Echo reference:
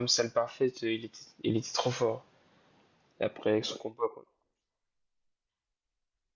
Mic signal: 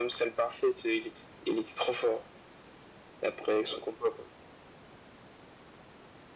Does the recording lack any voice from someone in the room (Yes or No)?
Yes